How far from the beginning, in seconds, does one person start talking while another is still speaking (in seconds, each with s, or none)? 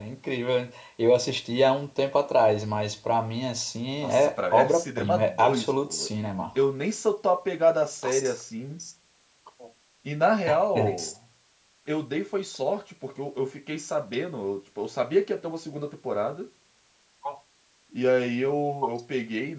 4.0 s